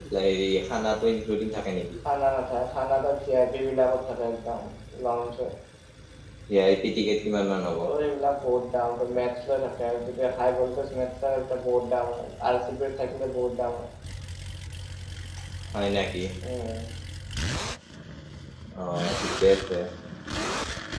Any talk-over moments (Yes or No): No